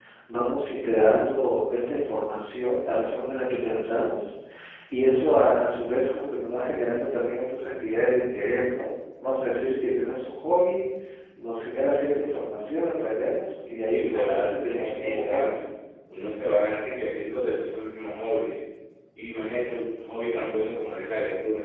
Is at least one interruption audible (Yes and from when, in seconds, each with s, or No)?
Yes, from 13.9 s